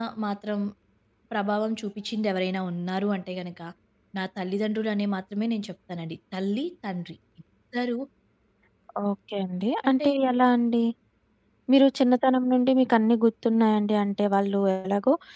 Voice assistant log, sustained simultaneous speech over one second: none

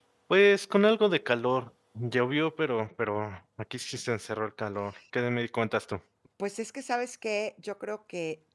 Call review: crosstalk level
none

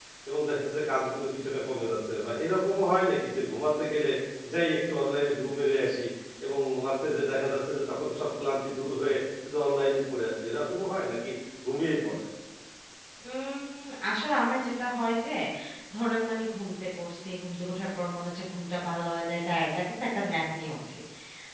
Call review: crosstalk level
none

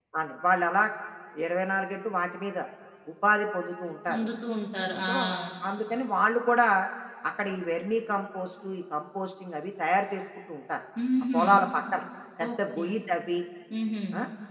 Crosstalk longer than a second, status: none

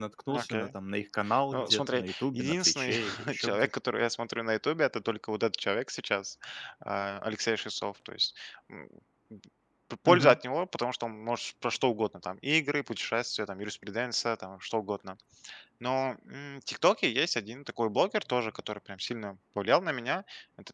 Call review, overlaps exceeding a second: present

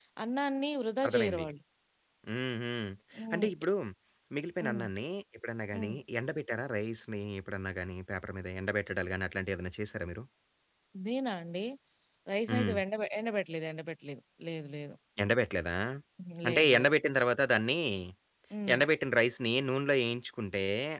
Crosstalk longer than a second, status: none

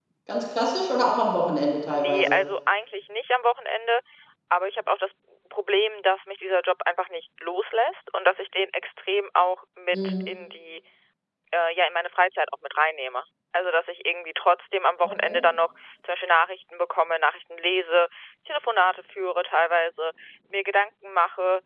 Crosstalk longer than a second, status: none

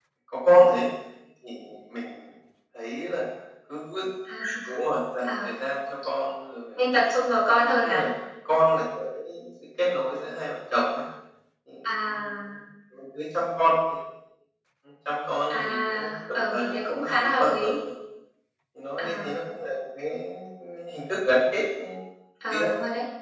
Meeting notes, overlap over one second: present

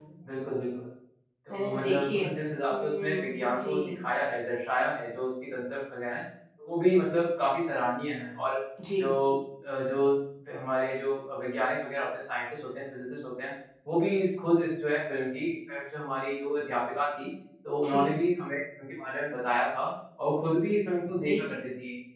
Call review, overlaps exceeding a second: present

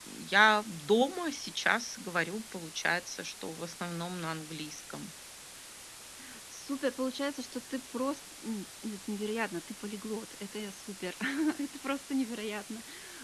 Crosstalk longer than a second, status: none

